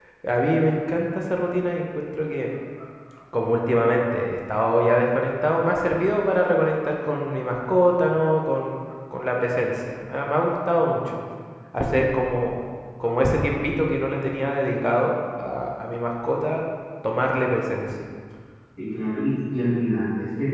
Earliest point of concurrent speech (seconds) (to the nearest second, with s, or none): none